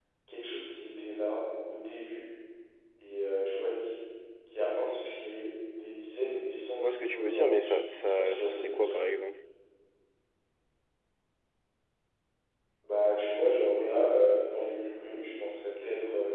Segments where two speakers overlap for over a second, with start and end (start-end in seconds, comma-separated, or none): 6.8-9.0